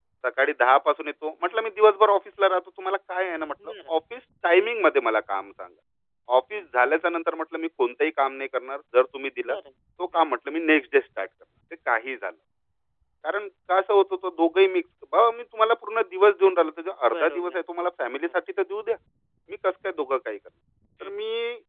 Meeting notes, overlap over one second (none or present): none